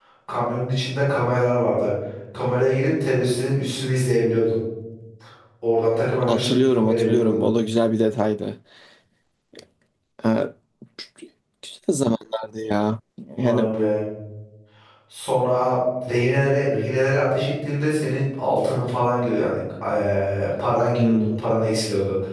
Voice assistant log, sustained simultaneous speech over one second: present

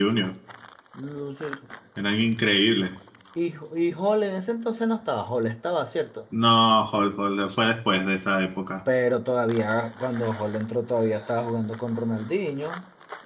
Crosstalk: none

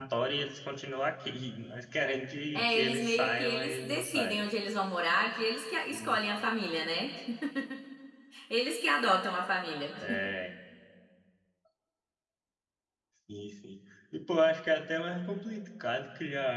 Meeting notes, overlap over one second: present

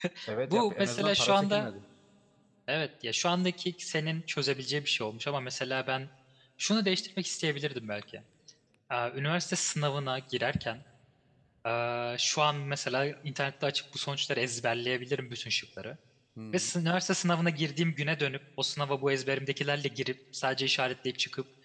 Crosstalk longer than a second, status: present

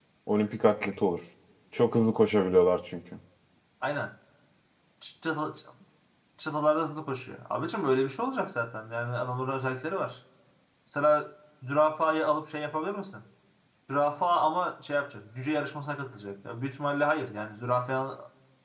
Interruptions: none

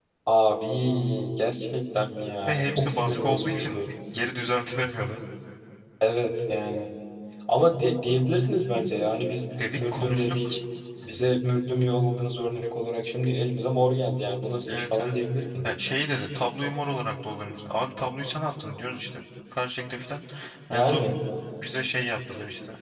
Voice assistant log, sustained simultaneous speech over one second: present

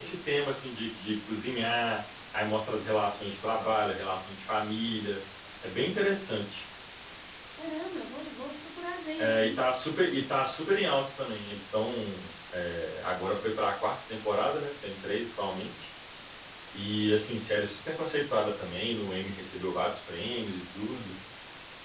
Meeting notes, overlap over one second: none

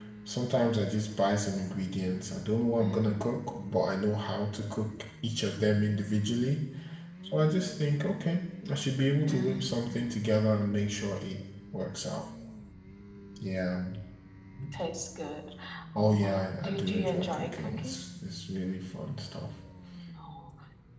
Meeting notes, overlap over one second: present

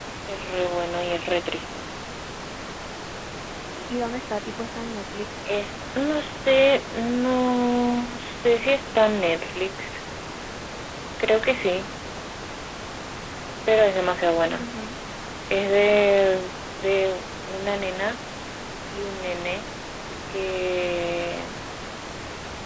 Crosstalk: none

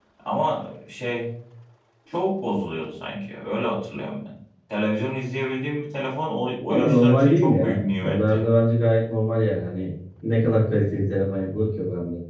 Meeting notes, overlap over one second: present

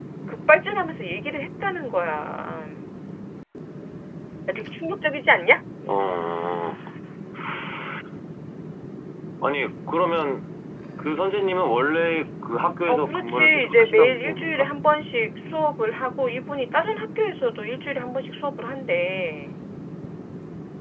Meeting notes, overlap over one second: present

